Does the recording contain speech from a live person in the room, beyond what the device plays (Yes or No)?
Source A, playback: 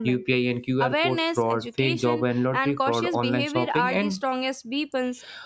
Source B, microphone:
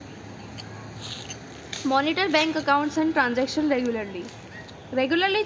Yes